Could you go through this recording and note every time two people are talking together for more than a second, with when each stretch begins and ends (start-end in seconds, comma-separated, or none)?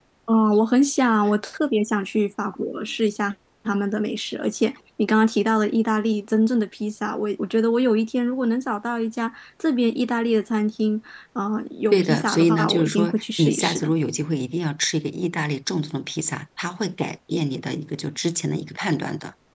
11.9-13.9